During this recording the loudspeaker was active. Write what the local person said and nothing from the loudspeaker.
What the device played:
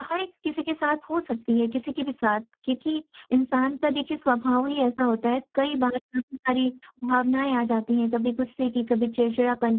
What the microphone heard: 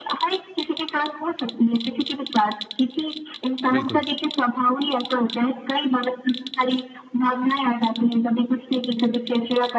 बिल्कुल।

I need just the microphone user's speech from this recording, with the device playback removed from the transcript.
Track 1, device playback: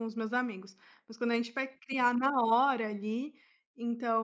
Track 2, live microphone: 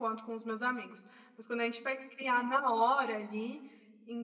none

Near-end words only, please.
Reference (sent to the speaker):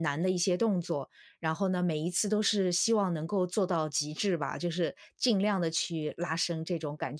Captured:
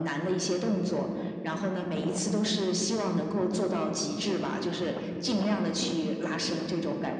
none

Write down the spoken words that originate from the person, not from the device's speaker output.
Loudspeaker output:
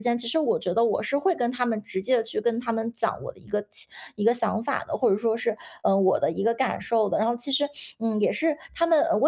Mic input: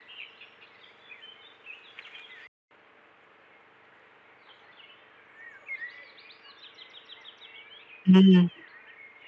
嗯

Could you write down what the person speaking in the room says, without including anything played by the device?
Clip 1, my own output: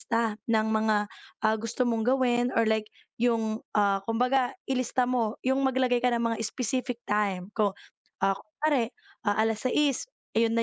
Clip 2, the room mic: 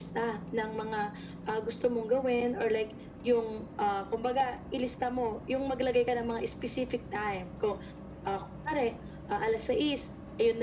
none

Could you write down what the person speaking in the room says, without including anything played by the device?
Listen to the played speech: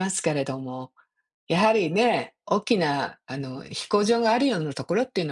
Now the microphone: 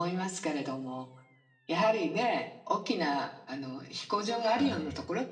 はい。

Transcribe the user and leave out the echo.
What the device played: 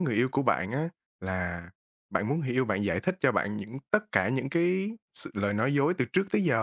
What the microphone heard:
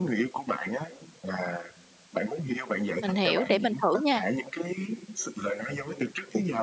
mình hiểu, để mình thử nha,

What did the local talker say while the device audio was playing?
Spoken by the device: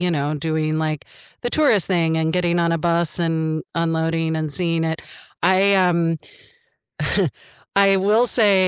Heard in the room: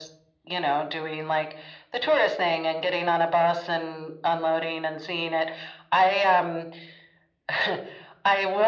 none

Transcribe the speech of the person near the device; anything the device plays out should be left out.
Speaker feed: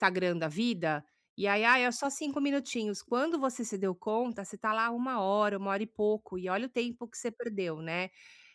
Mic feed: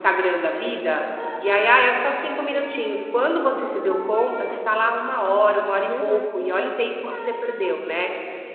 uhum, uhum.

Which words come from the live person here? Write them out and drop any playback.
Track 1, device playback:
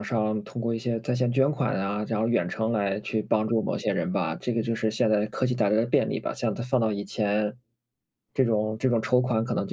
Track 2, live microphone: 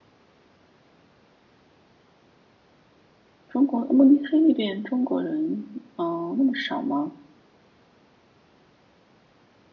中国慕尼黑那边中国人，哦，那么少吗？

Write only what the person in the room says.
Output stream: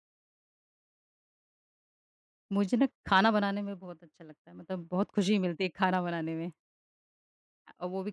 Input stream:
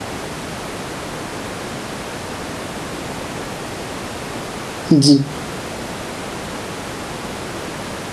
जी,

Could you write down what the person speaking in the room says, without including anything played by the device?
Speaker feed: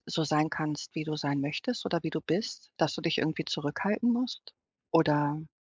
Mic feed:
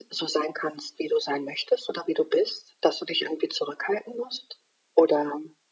none

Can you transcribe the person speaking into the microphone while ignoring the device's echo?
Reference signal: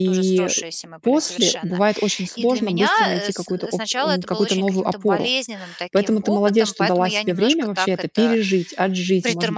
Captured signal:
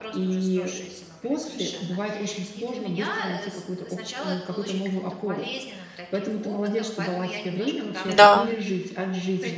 Да,

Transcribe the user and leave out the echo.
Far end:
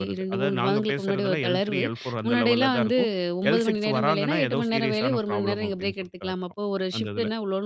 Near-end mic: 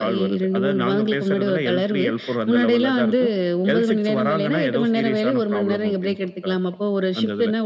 none

